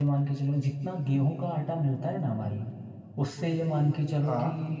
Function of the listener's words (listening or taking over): listening